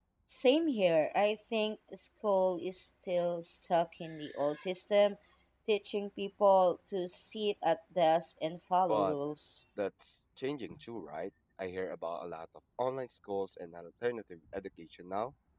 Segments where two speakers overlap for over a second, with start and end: none

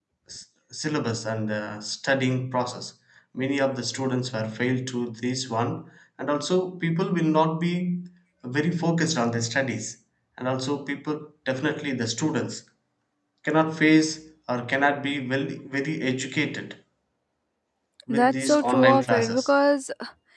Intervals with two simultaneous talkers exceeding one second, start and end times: 18.1-19.5

